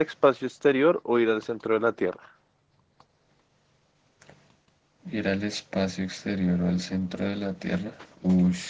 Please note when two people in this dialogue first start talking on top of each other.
none

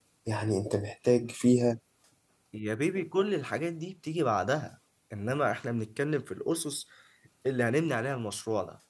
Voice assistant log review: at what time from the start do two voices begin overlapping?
none

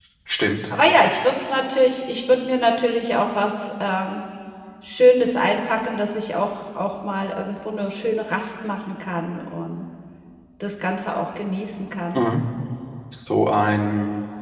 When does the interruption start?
none

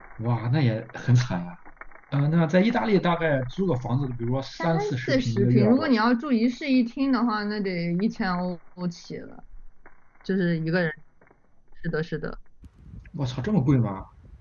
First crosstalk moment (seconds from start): 4.6 s

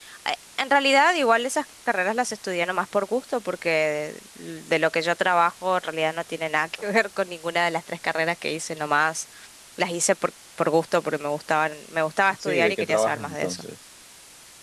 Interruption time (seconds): 12.3 s

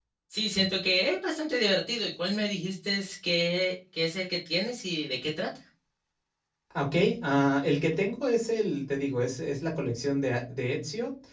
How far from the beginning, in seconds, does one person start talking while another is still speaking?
none

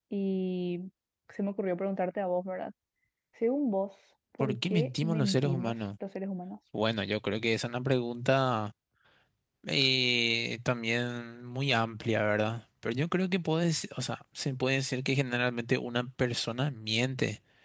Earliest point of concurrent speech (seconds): 4.4 s

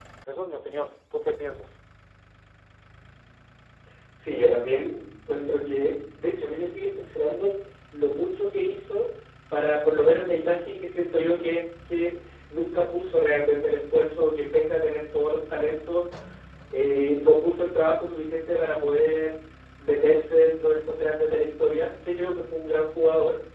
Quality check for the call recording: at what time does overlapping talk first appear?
none

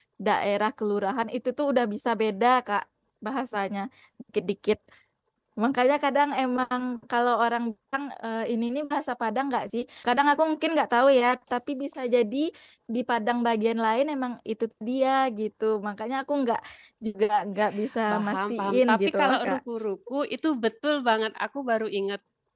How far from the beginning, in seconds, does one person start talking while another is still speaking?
18.1 s

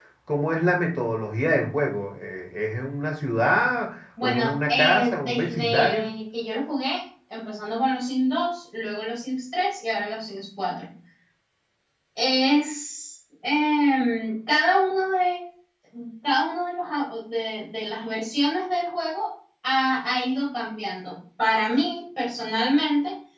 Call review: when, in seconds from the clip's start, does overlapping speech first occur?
4.2 s

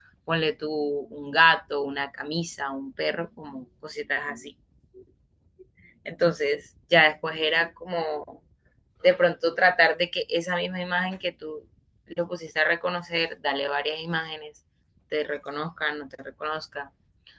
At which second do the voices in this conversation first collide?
none

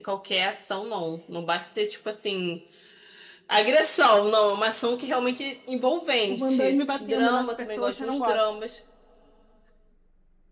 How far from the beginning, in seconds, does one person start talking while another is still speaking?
6.3 s

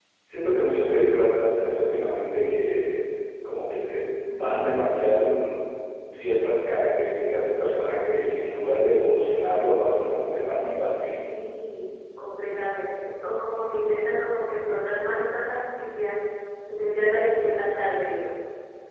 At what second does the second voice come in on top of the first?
none

